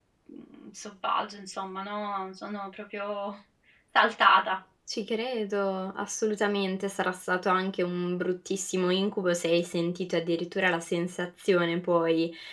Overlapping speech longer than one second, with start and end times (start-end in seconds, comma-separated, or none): none